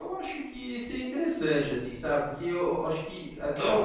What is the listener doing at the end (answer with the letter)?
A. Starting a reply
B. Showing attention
B